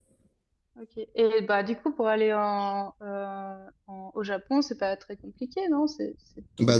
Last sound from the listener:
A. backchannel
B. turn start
B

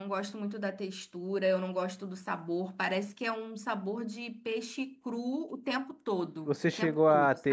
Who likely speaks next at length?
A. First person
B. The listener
B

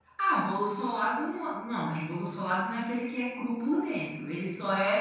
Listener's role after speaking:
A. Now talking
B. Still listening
B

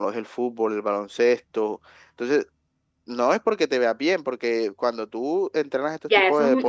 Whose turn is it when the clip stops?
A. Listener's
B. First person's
A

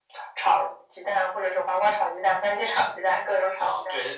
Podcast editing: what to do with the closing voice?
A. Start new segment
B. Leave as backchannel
A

